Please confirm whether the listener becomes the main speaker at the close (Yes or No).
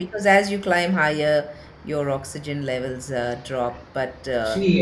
Yes